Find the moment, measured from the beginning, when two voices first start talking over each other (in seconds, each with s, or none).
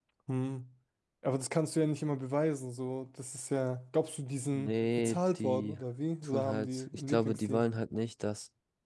4.5 s